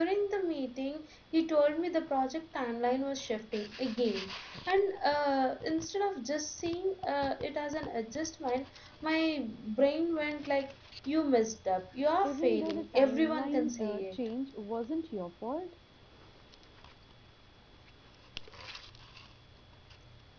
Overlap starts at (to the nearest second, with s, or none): 12 s